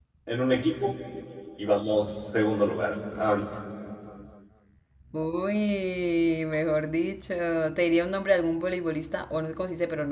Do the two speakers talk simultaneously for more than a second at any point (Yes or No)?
No